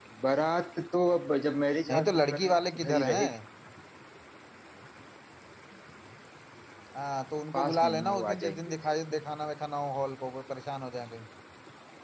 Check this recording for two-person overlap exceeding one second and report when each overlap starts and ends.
1.9-3.3, 7.5-8.8

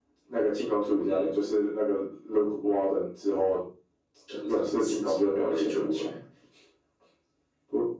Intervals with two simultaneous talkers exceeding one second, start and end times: 4.5-6.1

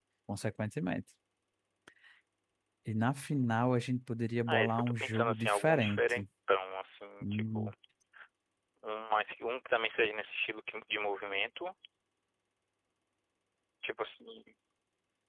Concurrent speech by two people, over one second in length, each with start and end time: 4.5-6.2

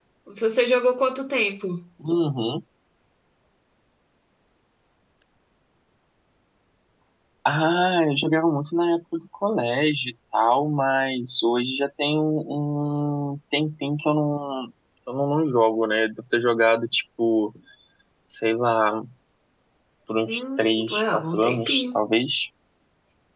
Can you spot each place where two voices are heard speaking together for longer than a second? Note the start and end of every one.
20.3-21.8

